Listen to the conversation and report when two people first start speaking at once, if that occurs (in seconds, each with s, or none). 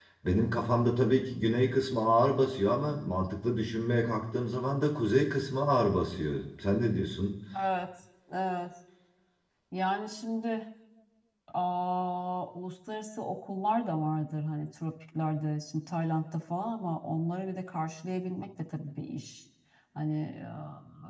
none